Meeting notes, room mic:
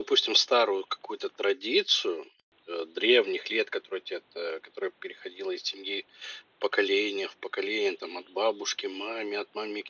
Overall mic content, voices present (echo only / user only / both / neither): echo only